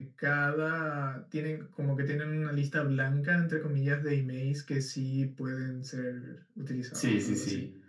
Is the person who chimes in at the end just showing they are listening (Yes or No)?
No